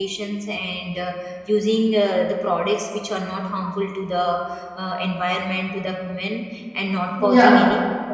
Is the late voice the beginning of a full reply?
No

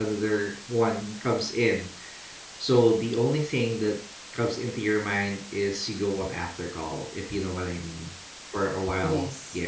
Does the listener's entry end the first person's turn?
No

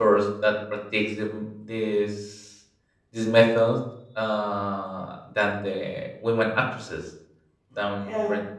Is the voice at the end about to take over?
No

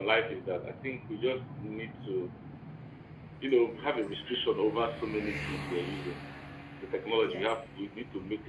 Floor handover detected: No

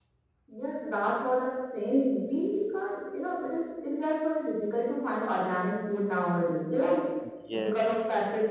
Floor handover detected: No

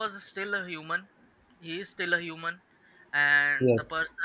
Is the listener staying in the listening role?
Yes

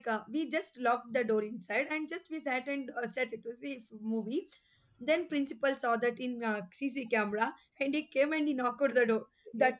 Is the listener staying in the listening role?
Yes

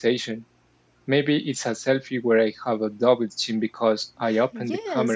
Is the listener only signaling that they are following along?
No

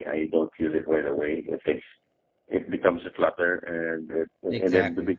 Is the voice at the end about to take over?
No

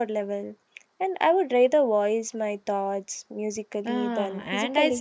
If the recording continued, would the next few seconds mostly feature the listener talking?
Yes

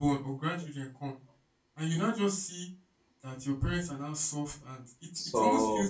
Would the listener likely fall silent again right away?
Yes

